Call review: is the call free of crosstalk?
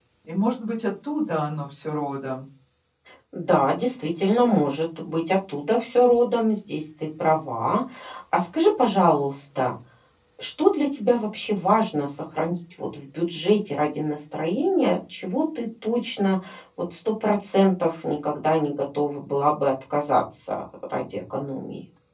Yes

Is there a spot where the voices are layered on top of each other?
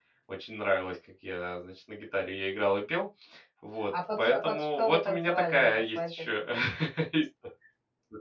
Yes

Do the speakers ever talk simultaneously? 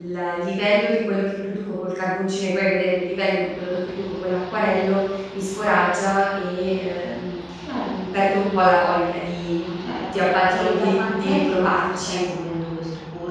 Yes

